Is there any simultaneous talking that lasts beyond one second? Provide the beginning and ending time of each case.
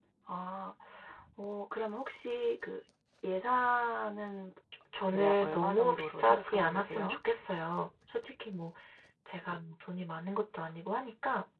5.1-7.2

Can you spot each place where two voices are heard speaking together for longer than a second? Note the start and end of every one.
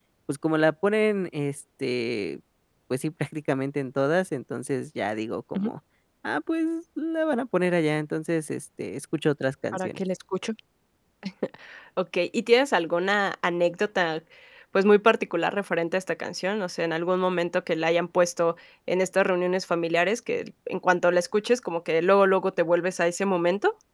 none

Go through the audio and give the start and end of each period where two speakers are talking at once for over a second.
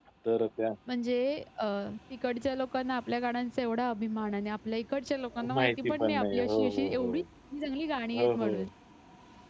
5.3-7.2

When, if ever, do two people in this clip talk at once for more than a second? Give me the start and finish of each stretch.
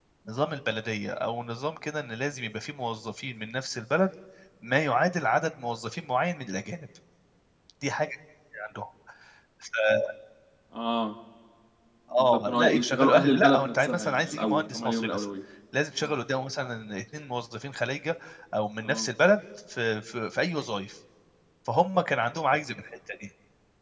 12.2-15.2

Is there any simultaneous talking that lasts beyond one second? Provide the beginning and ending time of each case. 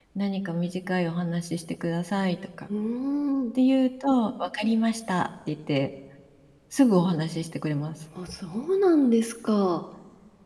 none

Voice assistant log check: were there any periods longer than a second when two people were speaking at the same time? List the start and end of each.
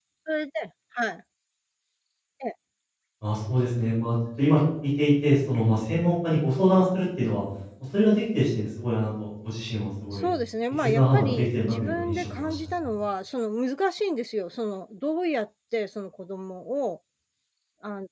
10.7-12.7

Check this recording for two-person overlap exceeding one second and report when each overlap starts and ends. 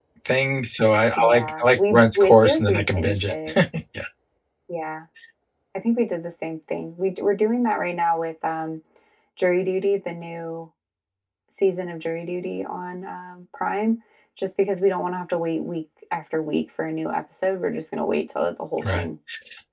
1.2-3.3

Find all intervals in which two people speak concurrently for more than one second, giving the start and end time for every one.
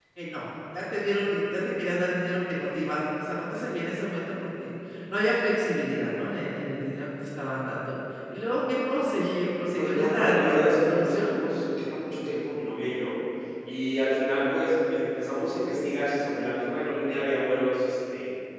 9.8-11.3

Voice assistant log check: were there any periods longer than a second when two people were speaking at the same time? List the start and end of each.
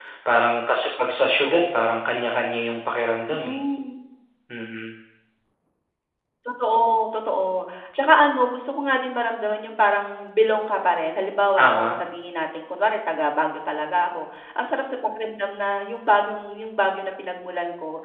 none

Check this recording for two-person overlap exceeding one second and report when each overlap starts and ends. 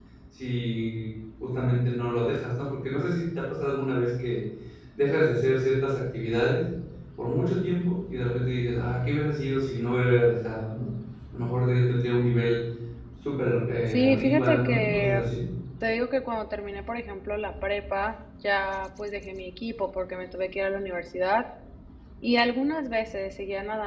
13.9-15.3

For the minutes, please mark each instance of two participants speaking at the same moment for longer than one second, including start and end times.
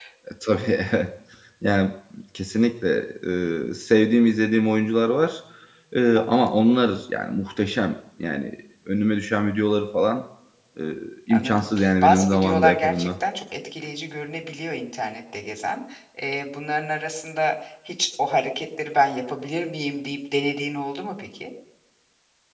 11.3-13.1

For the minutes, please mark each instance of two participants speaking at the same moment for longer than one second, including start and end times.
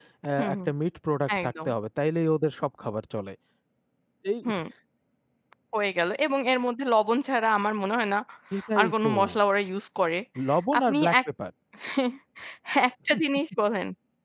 none

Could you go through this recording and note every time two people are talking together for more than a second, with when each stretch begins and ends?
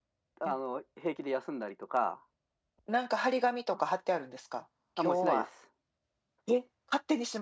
none

